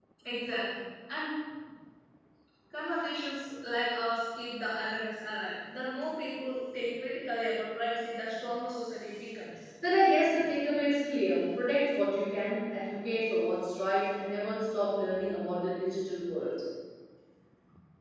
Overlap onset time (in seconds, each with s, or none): none